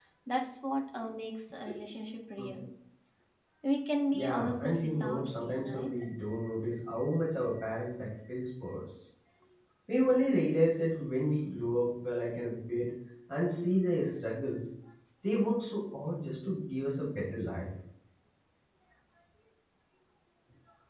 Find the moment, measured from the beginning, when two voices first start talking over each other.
4.1 s

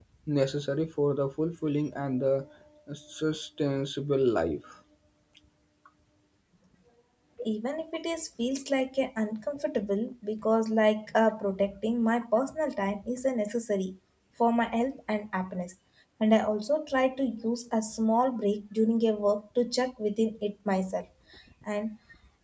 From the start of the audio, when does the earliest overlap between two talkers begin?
none

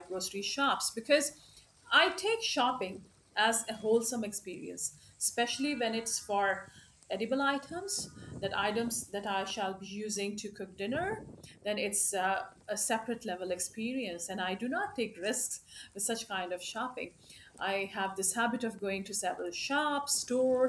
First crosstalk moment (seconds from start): none

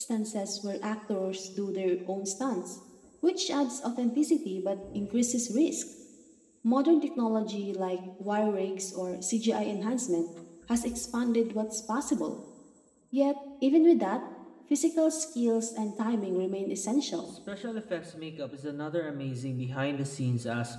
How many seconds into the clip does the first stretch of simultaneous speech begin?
none

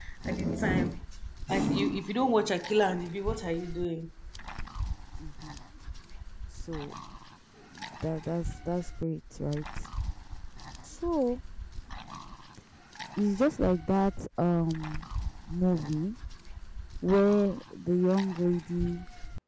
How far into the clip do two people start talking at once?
none

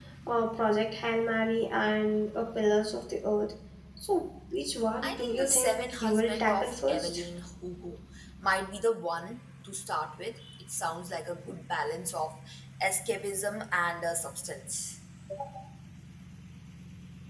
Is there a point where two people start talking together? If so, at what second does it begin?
5.0 s

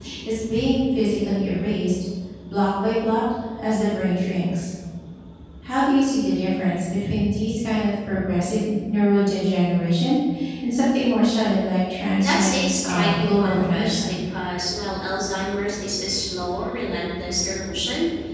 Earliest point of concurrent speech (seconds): 12.2 s

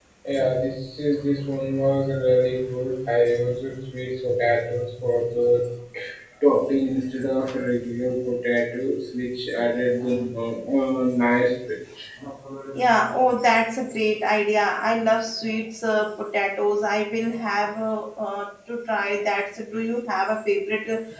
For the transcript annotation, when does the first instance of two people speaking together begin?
none

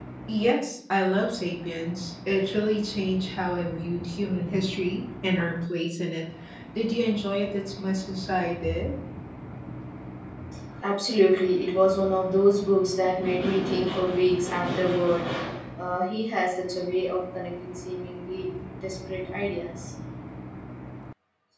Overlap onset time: none

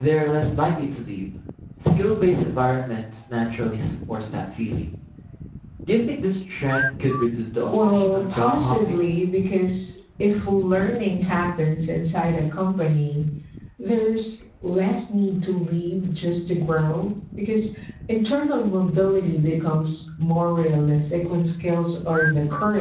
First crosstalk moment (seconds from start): 7.7 s

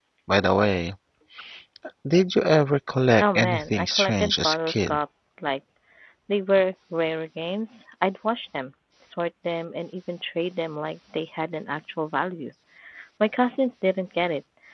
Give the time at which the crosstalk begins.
3.2 s

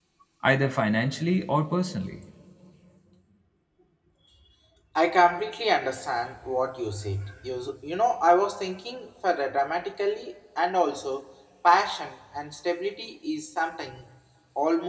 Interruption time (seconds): none

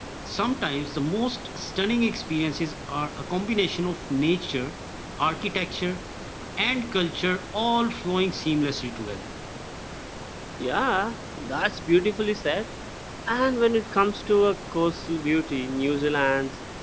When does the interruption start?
none

